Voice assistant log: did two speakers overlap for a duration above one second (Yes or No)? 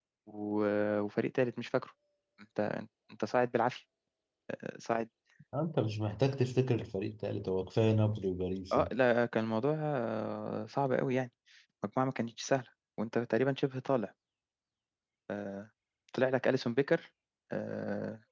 No